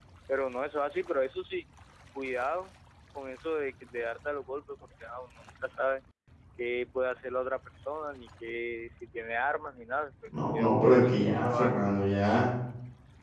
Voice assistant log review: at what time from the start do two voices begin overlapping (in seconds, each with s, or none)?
10.3 s